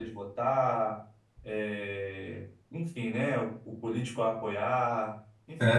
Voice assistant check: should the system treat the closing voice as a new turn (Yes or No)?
Yes